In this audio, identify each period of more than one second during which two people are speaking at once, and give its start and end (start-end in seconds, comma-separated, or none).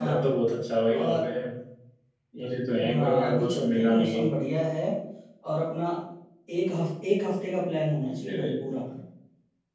2.9-4.2